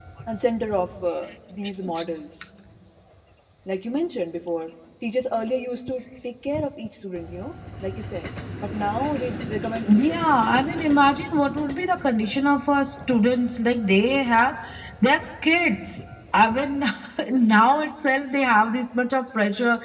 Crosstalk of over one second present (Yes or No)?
No